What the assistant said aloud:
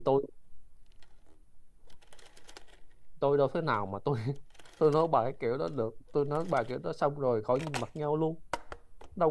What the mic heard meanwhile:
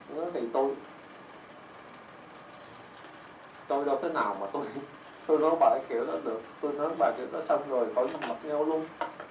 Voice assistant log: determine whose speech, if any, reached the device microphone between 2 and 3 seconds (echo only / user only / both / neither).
neither